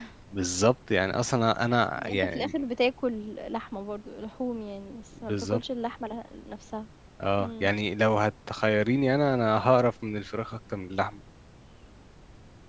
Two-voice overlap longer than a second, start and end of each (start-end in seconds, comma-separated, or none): none